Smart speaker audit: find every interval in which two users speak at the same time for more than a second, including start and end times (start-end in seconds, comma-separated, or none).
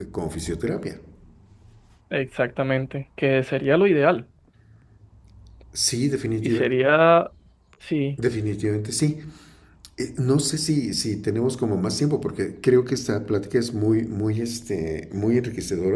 none